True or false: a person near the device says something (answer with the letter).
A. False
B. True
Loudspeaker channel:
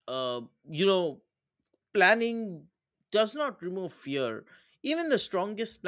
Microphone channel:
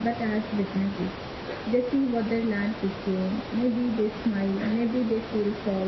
B